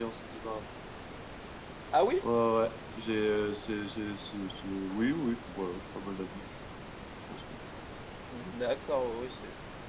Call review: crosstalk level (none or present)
none